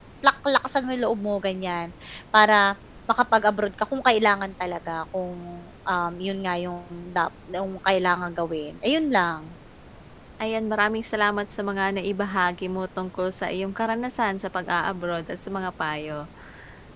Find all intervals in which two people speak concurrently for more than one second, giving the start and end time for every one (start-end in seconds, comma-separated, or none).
none